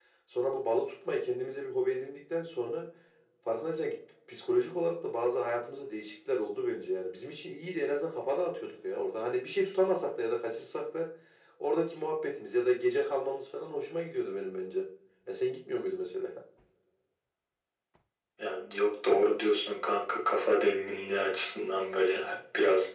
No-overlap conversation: Yes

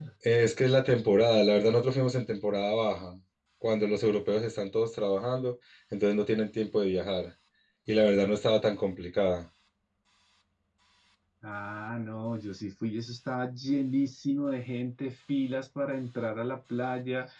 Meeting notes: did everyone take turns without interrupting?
Yes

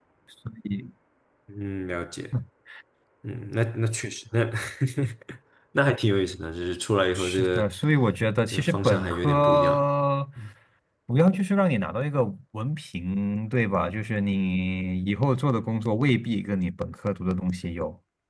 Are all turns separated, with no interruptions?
No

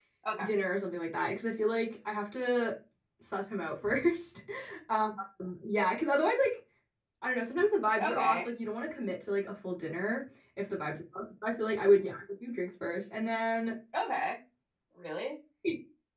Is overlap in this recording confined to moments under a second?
Yes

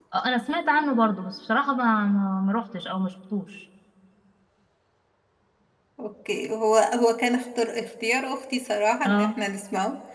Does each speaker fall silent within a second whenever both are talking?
Yes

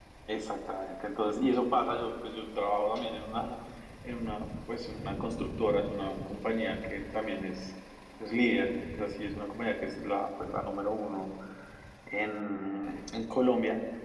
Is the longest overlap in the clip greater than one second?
No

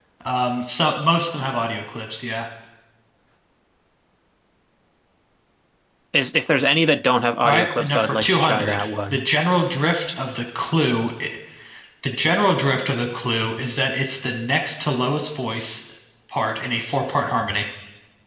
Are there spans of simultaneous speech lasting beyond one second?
Yes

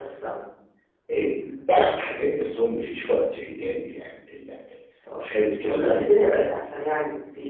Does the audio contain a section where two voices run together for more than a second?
No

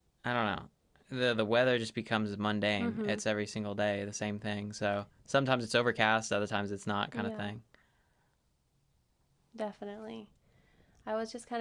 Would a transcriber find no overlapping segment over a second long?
Yes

